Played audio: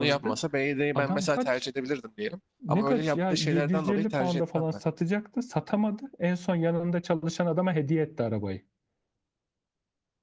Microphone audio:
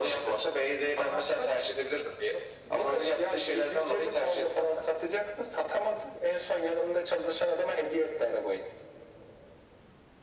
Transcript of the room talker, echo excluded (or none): none